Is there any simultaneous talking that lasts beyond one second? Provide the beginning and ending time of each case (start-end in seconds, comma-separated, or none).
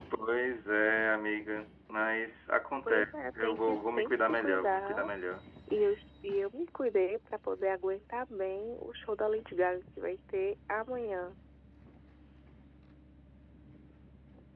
2.9-5.1